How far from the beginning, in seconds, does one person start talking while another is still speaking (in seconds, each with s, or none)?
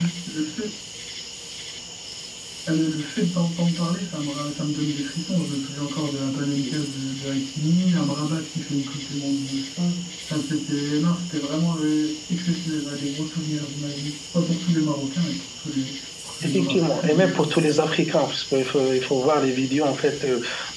16.4 s